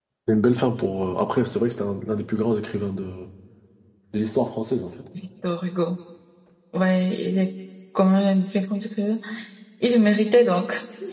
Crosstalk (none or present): none